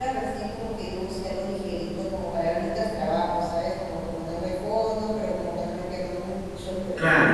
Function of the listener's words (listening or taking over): listening